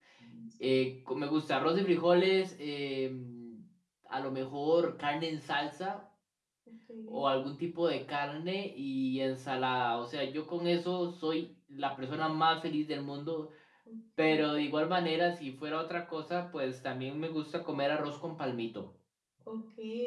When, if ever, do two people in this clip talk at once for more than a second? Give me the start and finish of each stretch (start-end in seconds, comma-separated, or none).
none